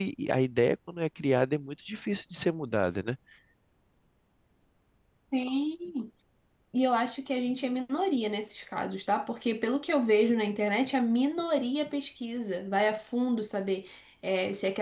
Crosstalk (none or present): none